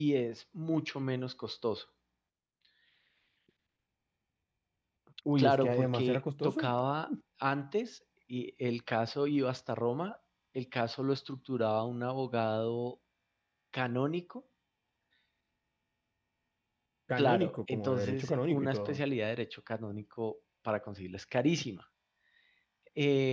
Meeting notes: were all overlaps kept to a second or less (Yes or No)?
No